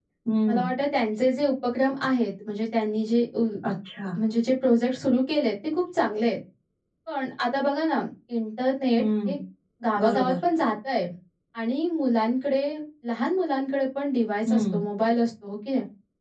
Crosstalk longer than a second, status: none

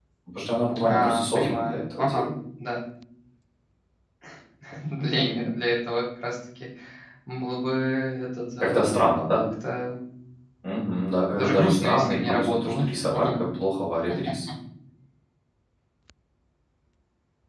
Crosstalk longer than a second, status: present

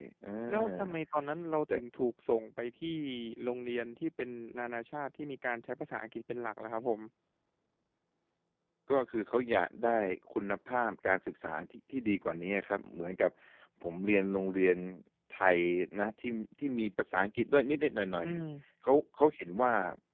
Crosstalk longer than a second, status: none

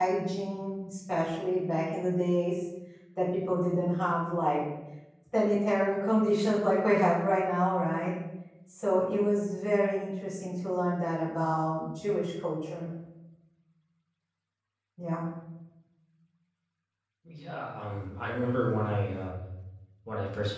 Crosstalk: none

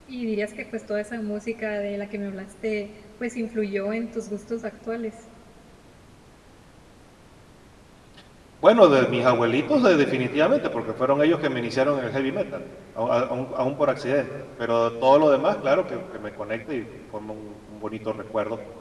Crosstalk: none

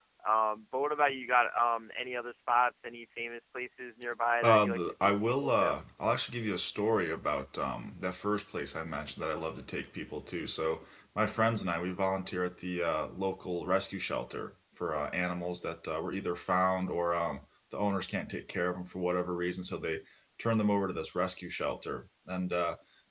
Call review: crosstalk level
present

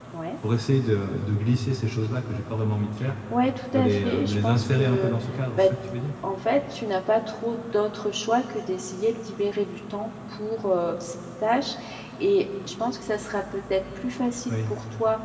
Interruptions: present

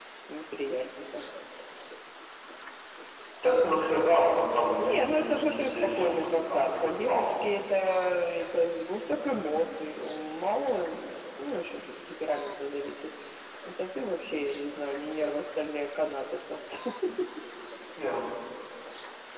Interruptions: present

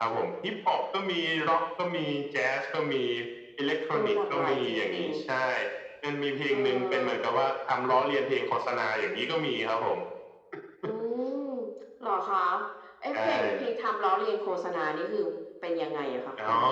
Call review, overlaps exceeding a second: present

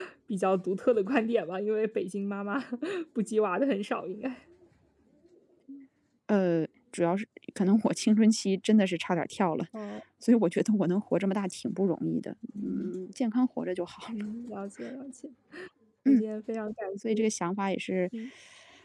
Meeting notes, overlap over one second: none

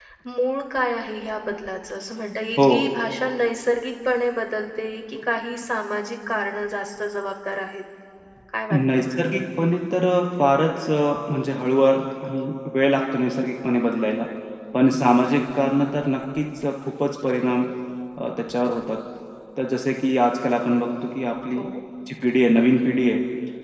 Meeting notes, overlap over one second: none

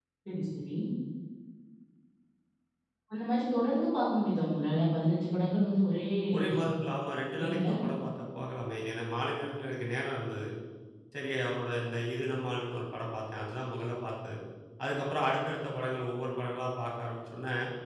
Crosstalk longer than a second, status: none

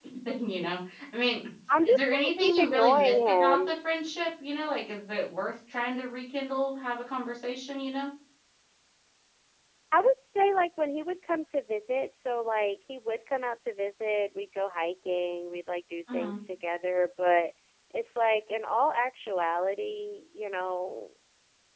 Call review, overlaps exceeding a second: present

